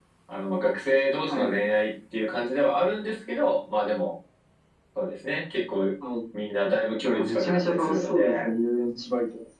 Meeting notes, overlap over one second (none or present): present